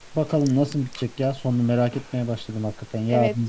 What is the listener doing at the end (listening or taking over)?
taking over